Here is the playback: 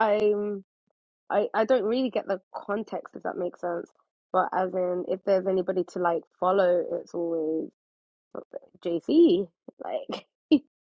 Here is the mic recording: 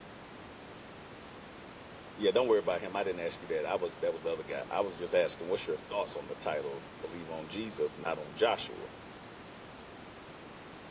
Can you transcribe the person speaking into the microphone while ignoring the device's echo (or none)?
Yeah, don't worry about him. I didn't ask you that. I was that was the other guy. I was just asking, what's your thoughts on the title? Believe on Jesus, not on Joshua.